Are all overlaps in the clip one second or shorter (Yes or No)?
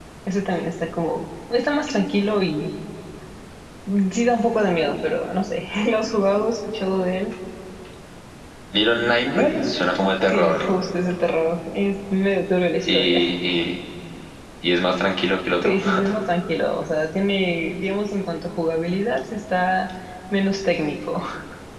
Yes